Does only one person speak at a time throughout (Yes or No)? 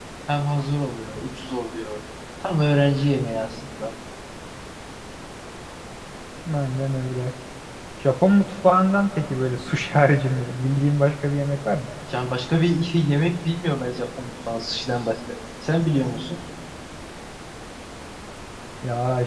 Yes